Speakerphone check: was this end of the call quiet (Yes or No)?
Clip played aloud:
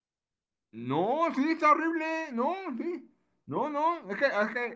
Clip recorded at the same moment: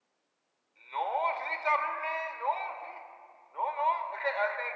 Yes